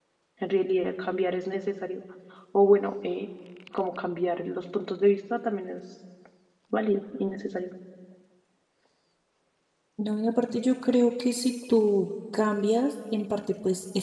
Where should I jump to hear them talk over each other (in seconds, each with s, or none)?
none